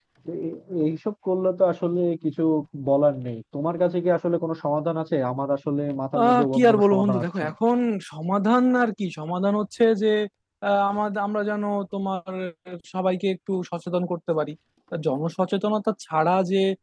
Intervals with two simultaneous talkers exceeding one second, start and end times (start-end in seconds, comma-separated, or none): 6.2-7.5